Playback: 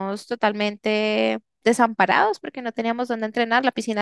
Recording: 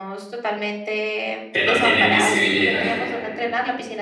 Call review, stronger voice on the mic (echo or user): user